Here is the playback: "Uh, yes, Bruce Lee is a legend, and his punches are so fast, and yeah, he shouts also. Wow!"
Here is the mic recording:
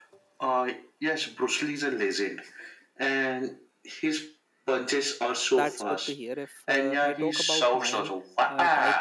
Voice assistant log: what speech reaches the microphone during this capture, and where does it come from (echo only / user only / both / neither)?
both